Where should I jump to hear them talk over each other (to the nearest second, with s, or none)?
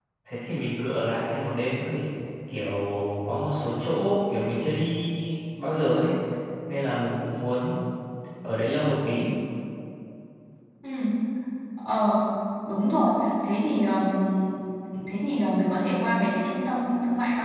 none